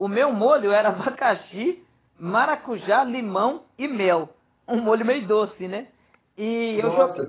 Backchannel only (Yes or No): Yes